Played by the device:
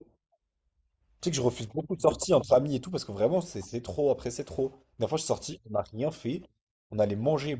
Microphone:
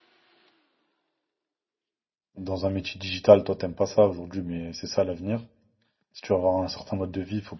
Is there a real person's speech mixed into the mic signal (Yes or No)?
Yes